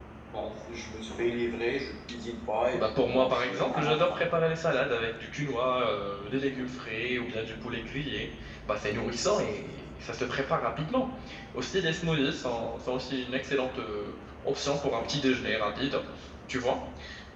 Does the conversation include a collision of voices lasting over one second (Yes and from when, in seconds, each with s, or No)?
Yes, from 2.7 s